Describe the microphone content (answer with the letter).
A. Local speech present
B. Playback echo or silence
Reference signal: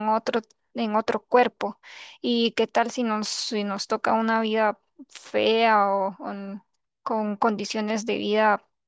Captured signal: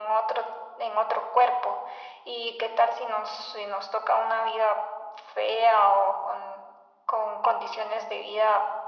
B